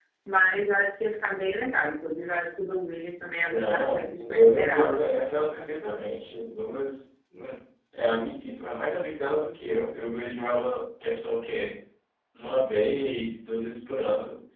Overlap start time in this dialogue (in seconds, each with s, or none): 3.5 s